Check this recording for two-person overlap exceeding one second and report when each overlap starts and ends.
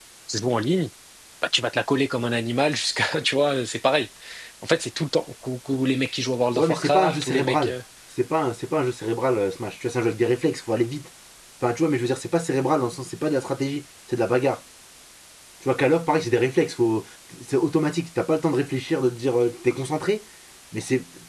6.5-7.8

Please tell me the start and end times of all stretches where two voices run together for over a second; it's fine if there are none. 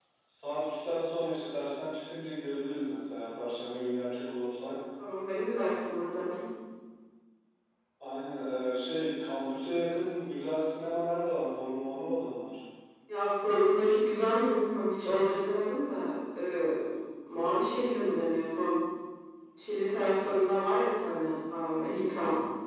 none

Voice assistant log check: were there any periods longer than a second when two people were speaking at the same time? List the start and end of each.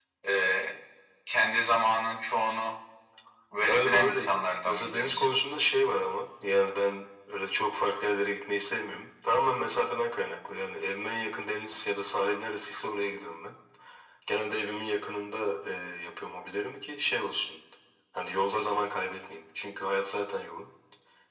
3.6-5.3

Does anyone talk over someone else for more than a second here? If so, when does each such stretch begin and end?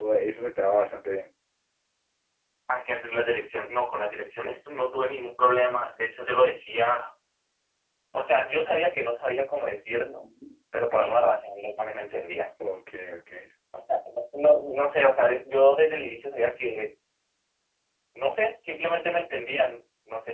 none

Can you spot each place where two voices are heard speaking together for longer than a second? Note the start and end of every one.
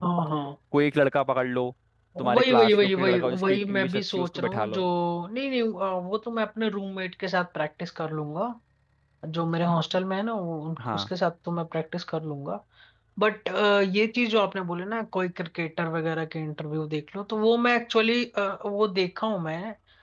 2.2-4.8

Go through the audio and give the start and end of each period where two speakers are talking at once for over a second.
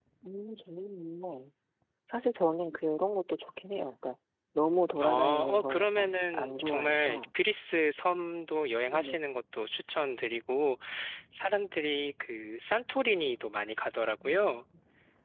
5.0-7.2

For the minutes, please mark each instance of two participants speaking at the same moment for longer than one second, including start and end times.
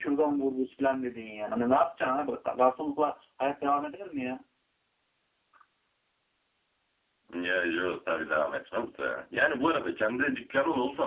none

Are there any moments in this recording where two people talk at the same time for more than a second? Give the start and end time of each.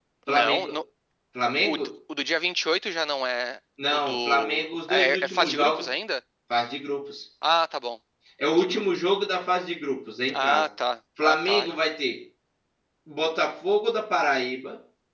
3.9-5.9

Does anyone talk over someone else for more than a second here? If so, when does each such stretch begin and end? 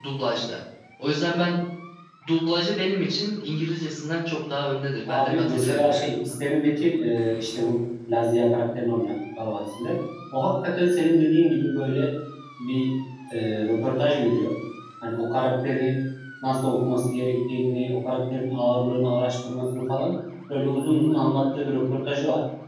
5.1-6.3

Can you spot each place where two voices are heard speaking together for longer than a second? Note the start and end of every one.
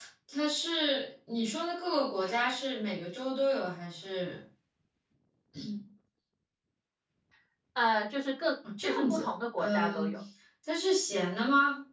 8.8-10.1

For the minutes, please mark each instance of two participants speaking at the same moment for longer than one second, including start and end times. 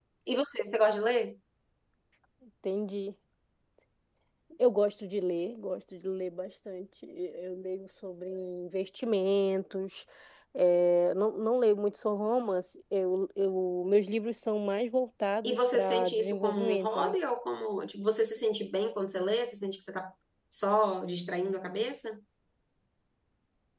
15.4-17.1

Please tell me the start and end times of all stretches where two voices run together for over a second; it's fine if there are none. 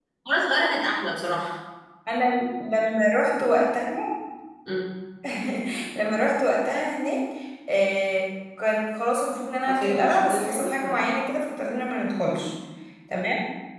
9.7-10.9

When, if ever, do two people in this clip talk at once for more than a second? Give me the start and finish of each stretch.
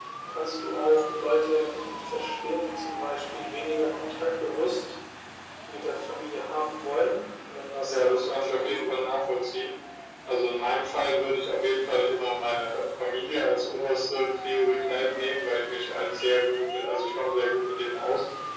7.8-9.0

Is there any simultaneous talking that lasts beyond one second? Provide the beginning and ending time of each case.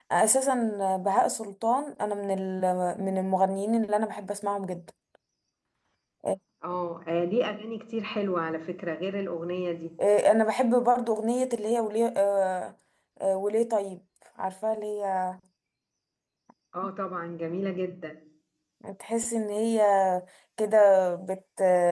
none

